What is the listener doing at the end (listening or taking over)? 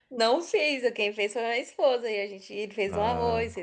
listening